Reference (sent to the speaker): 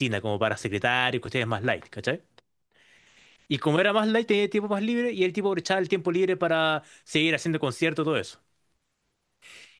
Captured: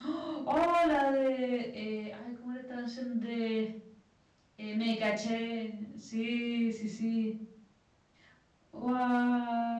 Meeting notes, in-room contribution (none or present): present